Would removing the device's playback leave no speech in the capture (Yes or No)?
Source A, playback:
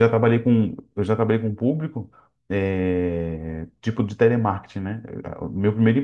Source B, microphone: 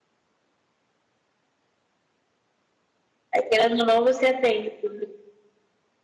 No